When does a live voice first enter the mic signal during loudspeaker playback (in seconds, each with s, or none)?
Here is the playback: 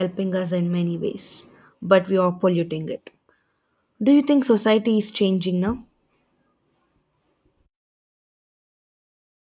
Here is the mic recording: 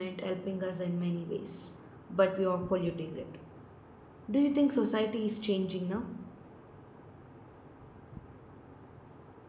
none